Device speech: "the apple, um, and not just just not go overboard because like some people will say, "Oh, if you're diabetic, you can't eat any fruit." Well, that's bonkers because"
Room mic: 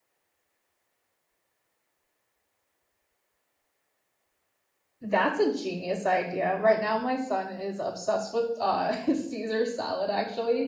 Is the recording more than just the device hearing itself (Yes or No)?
Yes